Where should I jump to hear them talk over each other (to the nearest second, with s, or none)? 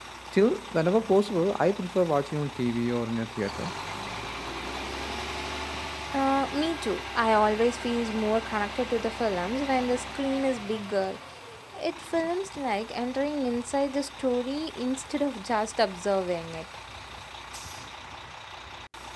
none